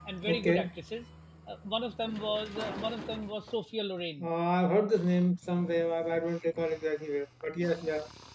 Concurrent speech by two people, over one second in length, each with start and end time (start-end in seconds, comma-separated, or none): none